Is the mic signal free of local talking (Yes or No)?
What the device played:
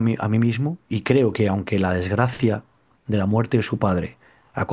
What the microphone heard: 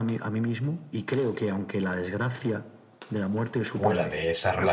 No